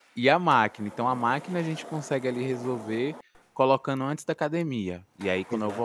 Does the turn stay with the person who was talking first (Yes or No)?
Yes